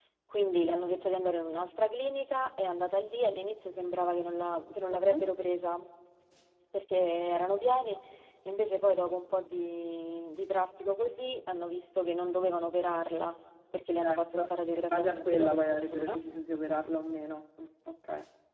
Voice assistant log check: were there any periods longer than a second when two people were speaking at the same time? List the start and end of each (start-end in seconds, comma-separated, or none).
14.0-16.1